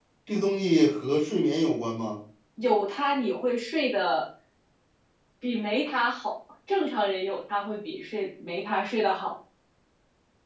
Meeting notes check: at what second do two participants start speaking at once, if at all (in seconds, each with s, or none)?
none